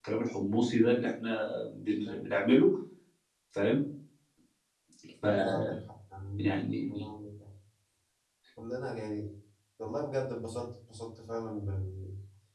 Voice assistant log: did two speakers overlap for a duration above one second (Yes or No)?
No